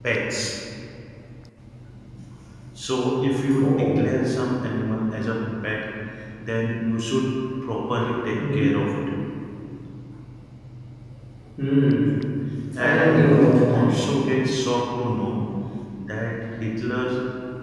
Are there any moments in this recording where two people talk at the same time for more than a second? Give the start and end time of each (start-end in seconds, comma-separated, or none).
12.8-14.2